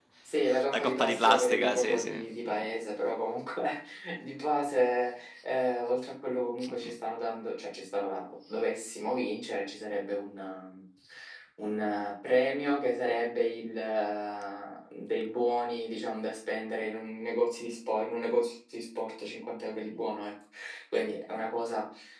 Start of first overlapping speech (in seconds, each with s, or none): 0.7 s